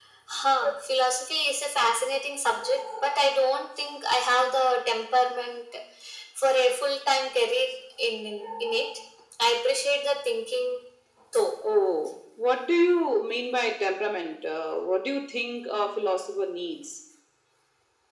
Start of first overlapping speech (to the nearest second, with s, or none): none